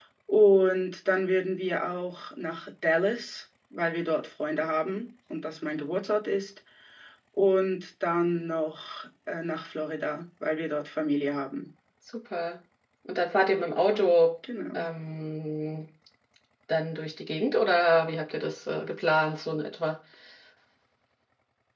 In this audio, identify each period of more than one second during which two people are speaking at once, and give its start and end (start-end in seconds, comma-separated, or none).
none